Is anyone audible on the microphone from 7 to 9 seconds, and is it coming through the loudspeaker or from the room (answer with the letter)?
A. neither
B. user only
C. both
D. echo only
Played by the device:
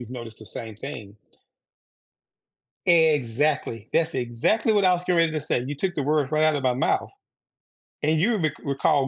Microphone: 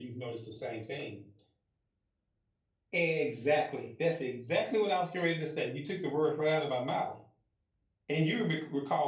D